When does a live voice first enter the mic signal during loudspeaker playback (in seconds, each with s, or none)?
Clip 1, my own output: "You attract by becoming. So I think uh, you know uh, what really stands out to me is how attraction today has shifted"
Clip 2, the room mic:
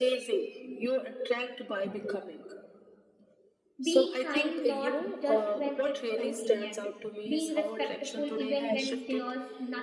3.9 s